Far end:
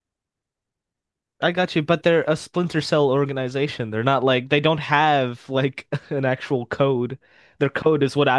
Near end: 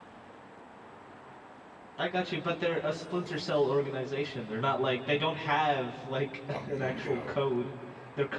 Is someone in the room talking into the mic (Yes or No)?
Yes